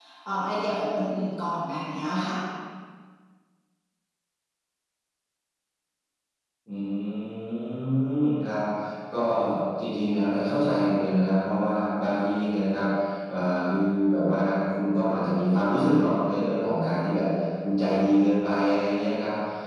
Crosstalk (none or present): none